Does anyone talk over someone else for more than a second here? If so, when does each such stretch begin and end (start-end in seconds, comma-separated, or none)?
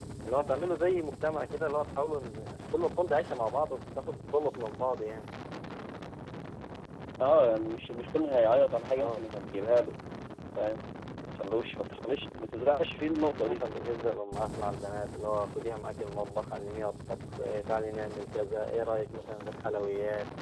none